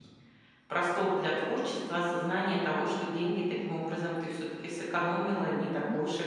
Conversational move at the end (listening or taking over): taking over